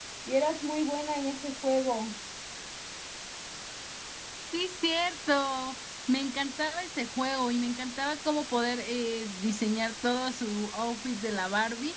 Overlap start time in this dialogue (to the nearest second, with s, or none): none